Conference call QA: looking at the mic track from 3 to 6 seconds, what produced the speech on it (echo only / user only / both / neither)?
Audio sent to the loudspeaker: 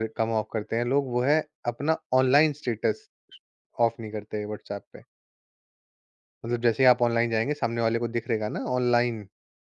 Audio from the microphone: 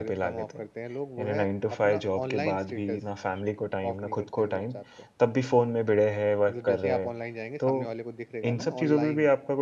both